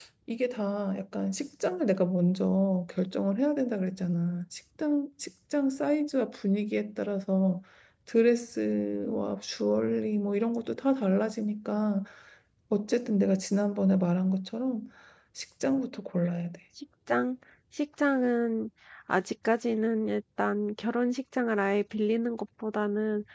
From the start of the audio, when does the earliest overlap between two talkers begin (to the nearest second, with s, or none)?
none